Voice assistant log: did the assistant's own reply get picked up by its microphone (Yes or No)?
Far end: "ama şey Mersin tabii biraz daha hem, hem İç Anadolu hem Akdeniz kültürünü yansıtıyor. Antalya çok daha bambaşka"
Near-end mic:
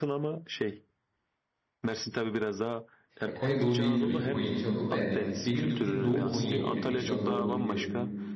Yes